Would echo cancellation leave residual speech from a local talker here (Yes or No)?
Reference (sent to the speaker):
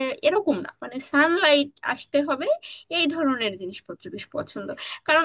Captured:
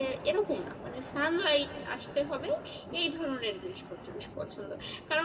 No